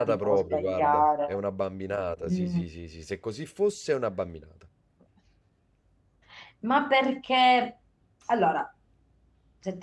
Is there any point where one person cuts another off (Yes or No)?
Yes